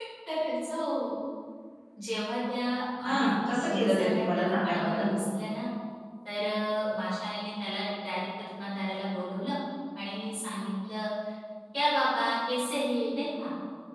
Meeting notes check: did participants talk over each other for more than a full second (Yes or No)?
Yes